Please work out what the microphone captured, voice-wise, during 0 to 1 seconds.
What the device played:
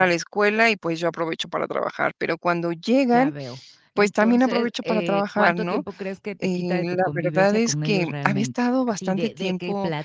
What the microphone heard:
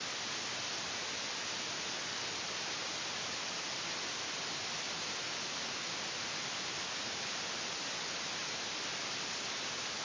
neither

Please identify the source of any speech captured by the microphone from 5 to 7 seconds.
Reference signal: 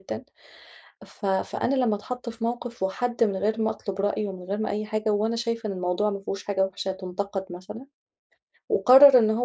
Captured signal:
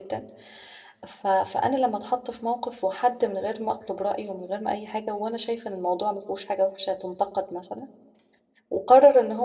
echo only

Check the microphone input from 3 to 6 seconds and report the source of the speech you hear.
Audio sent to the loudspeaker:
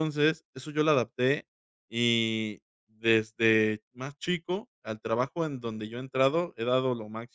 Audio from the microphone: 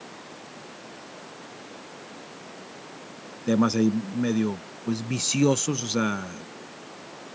user only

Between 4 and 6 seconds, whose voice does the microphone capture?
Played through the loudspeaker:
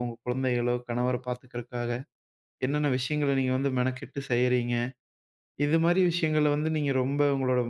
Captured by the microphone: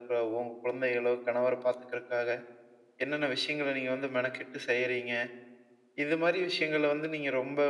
echo only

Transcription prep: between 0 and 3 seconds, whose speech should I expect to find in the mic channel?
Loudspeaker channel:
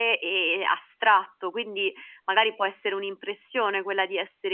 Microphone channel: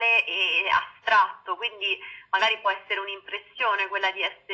echo only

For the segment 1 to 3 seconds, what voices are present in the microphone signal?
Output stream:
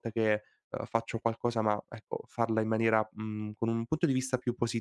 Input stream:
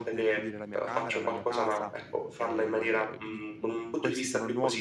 both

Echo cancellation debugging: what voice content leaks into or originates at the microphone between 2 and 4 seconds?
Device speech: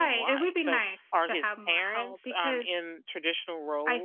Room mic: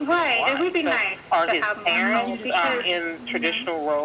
both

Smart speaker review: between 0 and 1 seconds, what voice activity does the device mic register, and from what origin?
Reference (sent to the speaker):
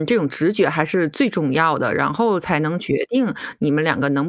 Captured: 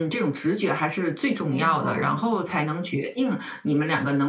echo only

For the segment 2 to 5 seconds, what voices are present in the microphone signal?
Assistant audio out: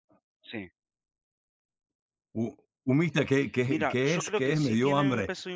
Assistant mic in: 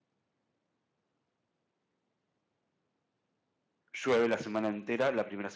user only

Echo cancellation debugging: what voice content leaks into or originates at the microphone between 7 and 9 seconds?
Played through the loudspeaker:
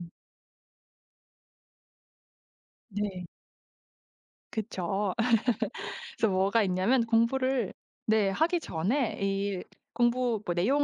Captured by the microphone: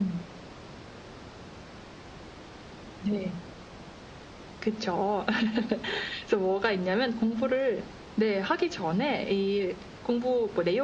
echo only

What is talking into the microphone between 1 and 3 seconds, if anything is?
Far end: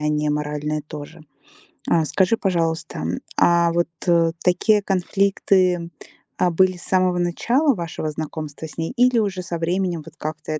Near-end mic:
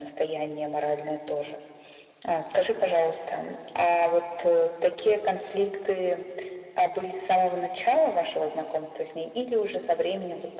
echo only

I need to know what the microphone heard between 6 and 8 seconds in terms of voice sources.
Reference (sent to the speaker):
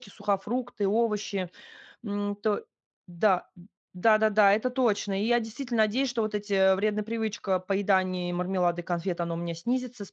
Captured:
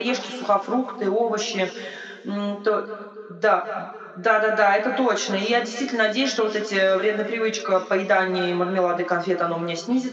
echo only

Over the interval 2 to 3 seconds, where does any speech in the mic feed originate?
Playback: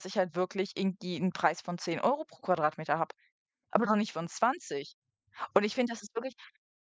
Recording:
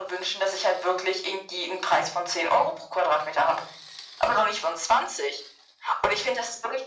echo only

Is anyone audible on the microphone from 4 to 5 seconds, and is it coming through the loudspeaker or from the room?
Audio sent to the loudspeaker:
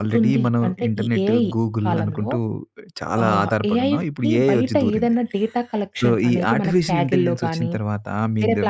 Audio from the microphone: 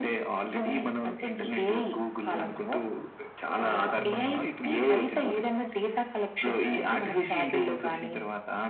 both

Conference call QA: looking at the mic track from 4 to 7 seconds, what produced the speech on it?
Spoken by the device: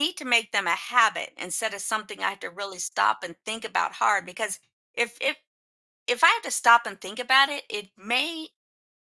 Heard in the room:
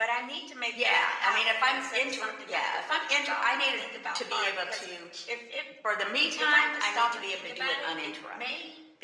both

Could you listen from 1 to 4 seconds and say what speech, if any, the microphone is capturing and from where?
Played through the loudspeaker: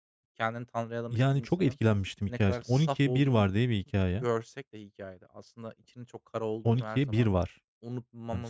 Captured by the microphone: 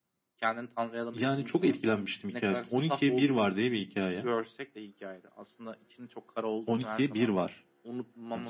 echo only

